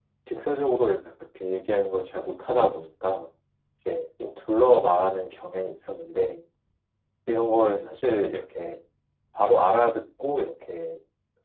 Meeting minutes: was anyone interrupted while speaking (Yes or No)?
No